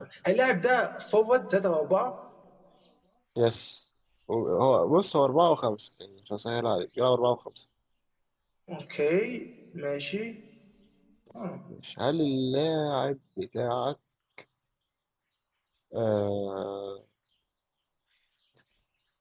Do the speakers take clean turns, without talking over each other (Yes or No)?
Yes